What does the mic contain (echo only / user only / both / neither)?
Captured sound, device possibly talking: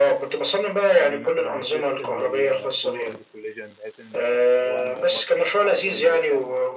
both